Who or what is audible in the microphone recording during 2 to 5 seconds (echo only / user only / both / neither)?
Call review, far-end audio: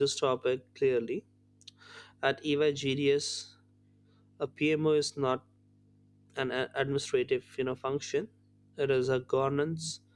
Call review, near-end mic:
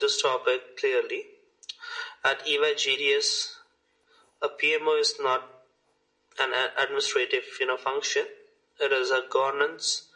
echo only